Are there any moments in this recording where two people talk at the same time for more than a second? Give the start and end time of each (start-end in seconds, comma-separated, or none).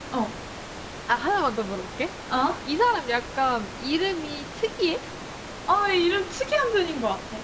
none